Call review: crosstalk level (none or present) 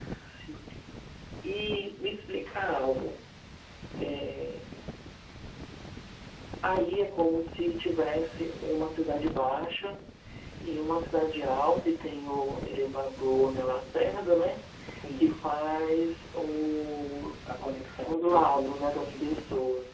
present